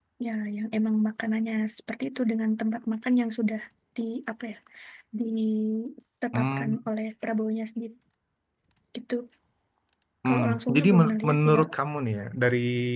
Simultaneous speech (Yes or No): Yes